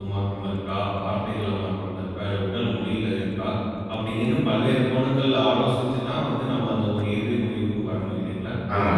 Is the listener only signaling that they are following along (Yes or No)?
No